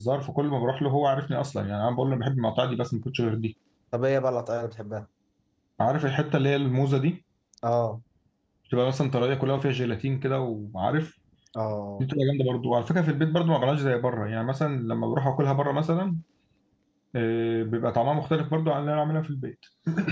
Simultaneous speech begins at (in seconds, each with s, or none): none